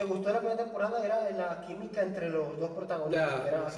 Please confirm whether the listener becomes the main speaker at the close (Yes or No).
Yes